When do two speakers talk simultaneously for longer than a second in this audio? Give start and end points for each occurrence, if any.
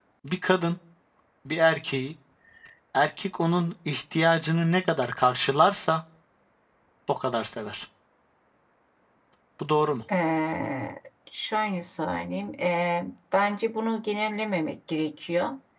none

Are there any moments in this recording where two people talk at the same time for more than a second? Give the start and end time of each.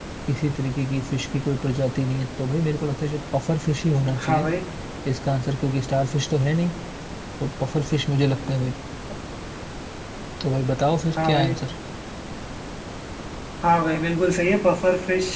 none

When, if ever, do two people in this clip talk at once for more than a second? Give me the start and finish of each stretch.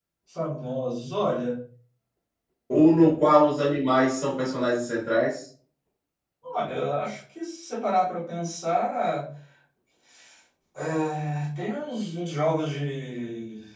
none

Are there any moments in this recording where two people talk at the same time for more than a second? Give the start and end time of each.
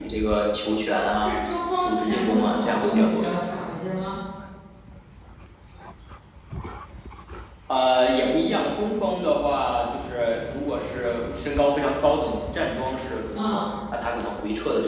1.8-3.3

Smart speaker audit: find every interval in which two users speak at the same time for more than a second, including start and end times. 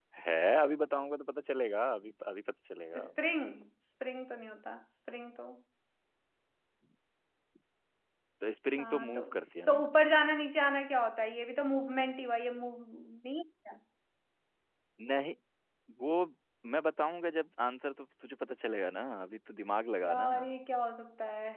none

